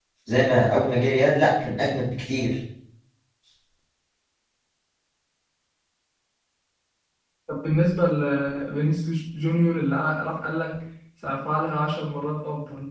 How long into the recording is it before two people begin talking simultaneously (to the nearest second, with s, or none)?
none